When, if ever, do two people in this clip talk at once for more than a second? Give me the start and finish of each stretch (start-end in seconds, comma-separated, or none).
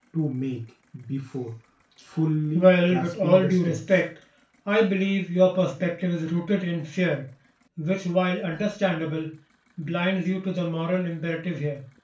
2.5-3.8